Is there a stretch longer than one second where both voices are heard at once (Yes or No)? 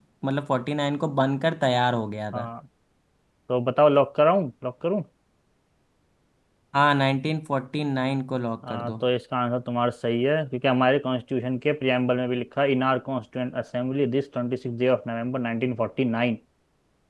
No